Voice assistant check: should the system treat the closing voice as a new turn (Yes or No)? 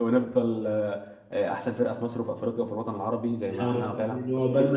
Yes